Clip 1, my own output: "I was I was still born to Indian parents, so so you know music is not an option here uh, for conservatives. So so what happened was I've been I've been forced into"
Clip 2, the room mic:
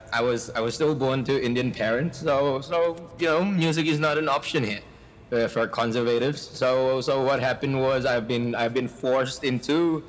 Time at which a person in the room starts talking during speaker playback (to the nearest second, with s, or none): none